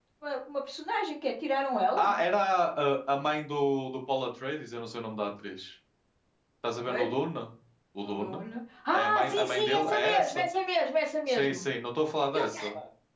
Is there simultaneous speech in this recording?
Yes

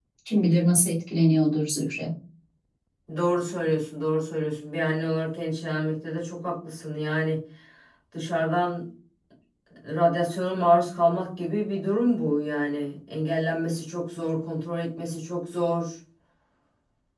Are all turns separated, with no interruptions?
Yes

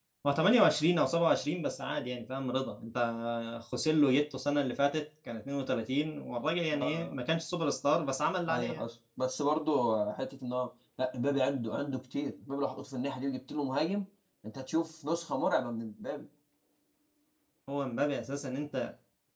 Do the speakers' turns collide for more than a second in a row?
No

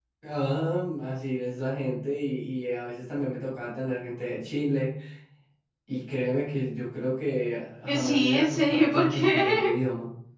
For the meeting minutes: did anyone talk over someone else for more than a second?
Yes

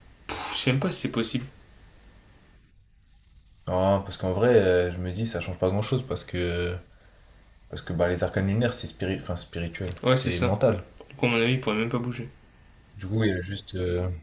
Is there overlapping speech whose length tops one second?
No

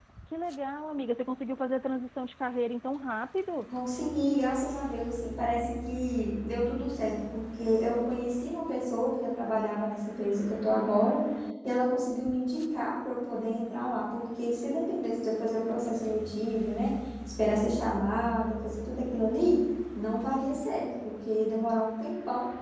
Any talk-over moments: No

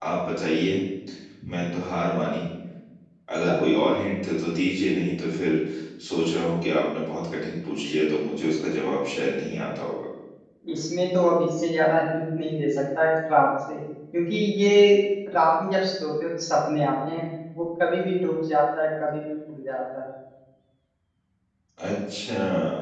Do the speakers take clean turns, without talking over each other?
Yes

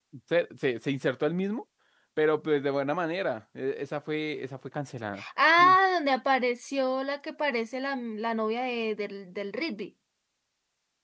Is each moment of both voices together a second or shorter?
Yes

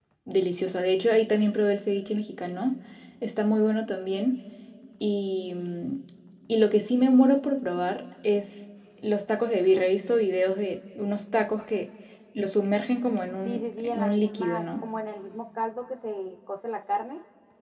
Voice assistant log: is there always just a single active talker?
No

